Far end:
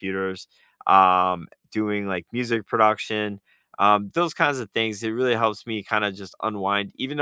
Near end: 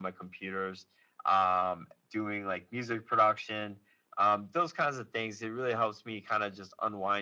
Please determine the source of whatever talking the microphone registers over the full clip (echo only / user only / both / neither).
echo only